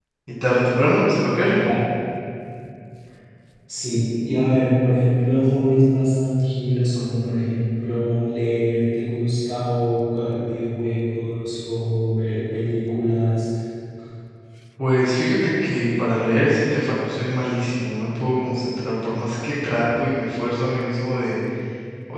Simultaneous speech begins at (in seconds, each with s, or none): none